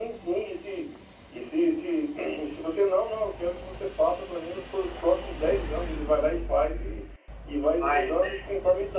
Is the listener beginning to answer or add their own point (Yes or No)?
No